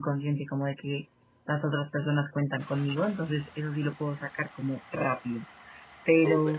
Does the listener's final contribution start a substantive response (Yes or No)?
No